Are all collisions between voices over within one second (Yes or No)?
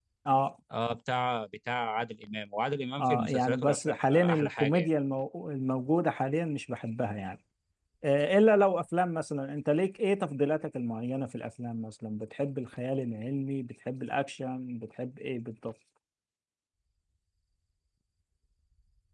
No